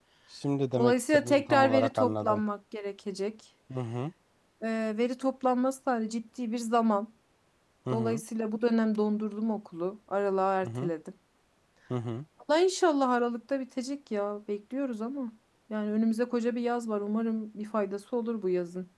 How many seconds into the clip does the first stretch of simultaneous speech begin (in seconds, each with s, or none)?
0.8 s